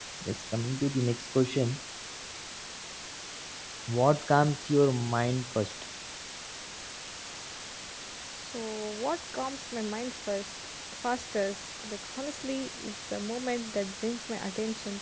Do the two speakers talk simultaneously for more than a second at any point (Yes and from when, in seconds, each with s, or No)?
No